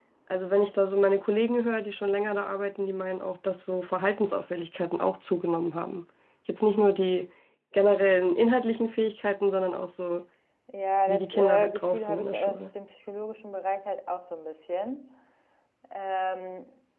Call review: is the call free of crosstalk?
No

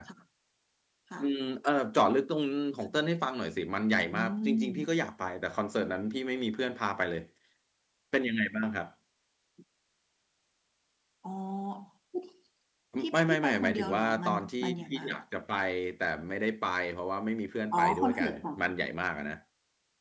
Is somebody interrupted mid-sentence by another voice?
Yes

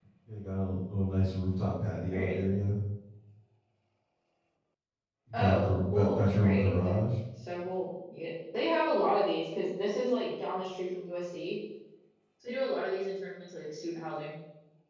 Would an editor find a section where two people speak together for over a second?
Yes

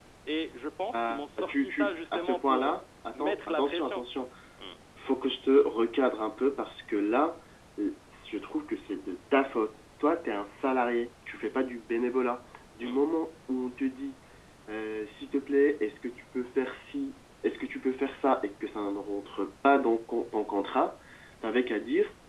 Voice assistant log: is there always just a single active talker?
No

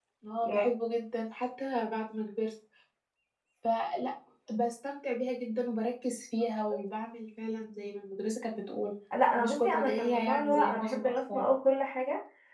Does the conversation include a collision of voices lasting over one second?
Yes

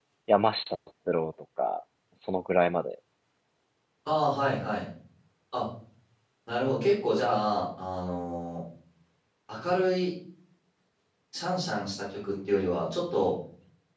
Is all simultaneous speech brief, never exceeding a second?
Yes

